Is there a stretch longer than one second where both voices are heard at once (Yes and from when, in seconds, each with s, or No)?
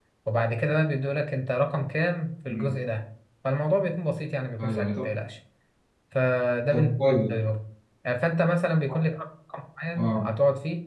No